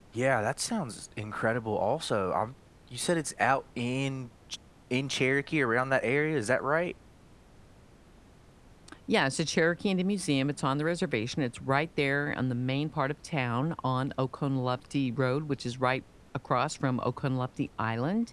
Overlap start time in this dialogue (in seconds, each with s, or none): none